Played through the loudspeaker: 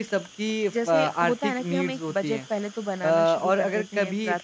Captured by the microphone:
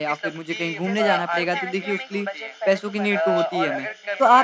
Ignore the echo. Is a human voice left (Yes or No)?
Yes